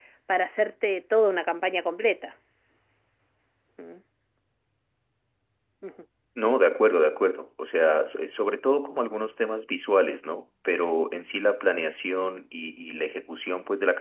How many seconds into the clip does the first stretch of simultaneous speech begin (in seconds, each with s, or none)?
none